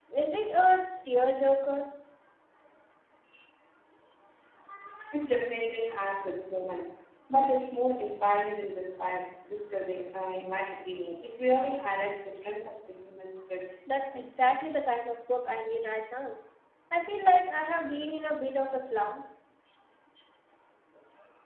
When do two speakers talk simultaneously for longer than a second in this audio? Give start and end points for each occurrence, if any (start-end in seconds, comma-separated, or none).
none